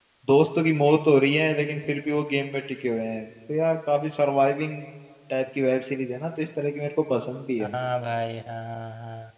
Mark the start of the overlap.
none

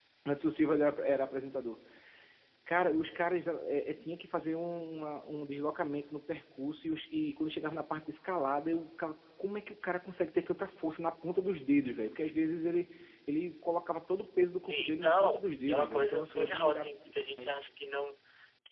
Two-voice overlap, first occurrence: 14.6 s

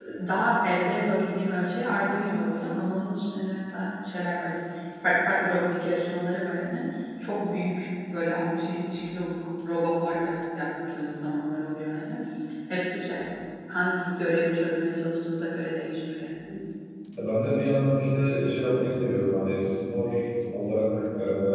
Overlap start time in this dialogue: none

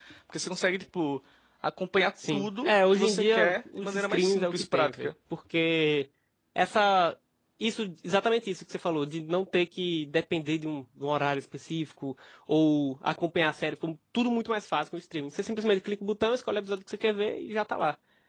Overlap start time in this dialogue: 2.3 s

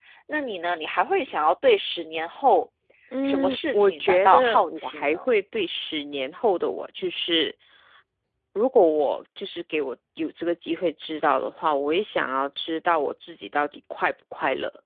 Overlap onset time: 3.2 s

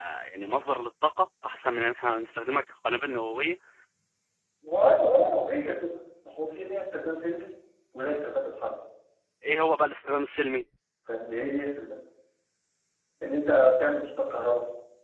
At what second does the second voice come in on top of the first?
none

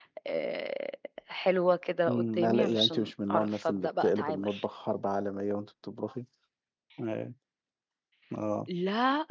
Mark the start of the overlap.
2.1 s

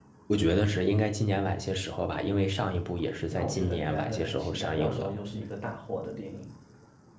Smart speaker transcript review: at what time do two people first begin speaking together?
3.3 s

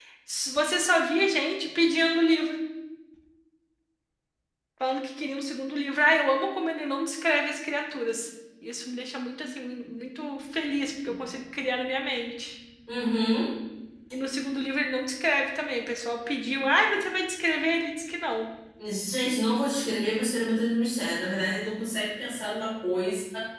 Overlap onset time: none

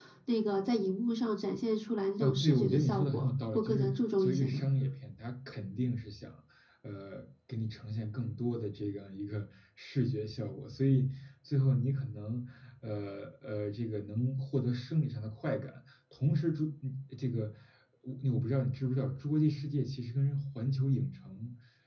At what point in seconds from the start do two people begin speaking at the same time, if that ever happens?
2.2 s

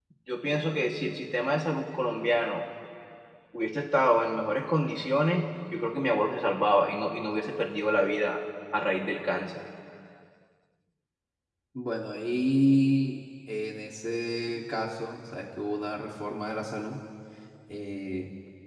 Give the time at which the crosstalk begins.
none

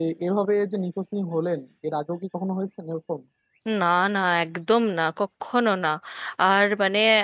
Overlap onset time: none

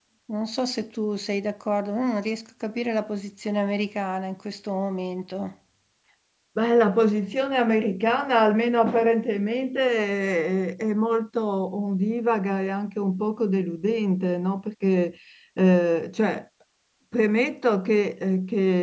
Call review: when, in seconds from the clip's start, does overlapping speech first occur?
none

